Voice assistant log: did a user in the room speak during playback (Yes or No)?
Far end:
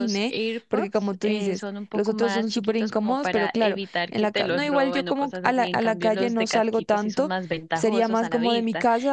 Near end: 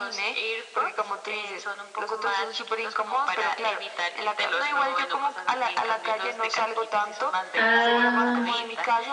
Yes